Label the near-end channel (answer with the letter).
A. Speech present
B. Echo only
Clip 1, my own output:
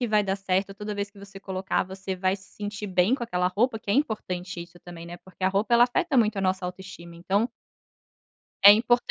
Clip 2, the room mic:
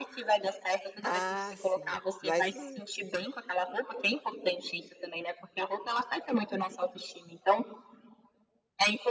A